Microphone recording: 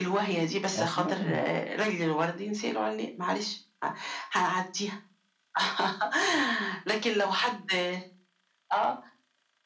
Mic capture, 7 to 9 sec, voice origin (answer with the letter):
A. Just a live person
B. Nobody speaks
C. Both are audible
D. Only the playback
D